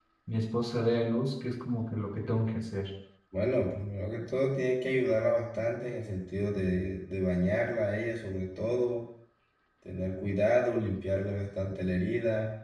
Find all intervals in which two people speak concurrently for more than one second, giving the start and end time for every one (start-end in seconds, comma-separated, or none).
none